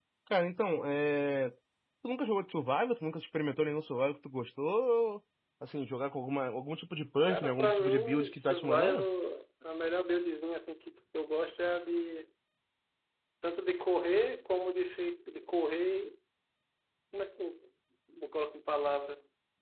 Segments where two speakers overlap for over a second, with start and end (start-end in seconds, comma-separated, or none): 7.3-9.0